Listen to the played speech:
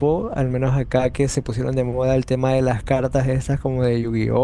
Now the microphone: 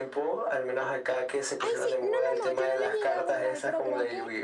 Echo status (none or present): present